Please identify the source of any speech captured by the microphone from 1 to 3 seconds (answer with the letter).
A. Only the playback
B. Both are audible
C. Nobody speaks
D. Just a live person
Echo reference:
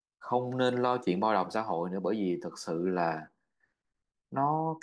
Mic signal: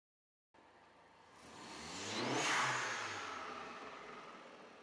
C